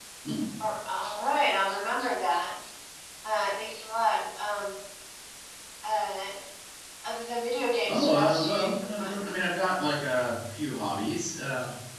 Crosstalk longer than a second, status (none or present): present